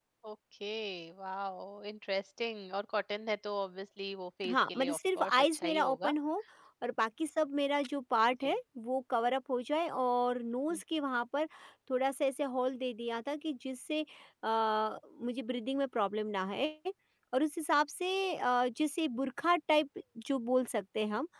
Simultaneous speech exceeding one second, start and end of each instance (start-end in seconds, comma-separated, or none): 4.5-6.1